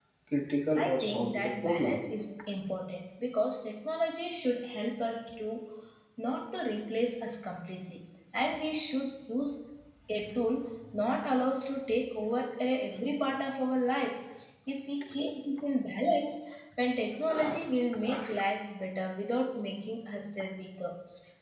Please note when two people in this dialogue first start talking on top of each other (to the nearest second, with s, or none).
1 s